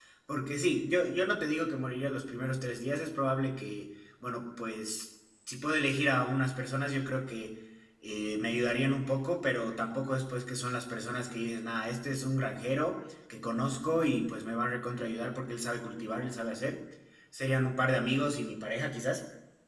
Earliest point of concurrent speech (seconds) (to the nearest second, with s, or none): none